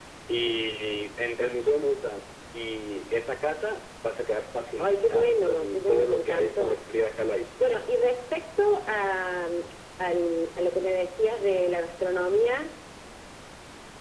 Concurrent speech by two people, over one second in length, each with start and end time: 4.8-6.8

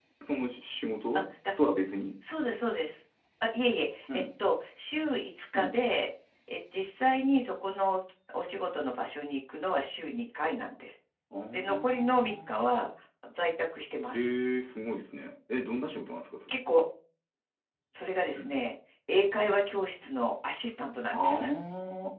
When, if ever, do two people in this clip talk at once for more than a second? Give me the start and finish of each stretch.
11.5-12.8

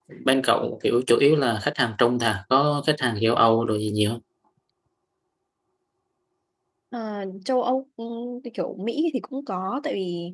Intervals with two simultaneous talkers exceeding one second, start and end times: none

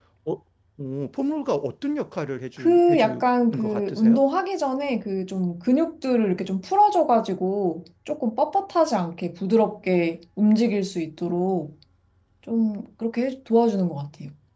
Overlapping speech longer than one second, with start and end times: 2.6-4.2

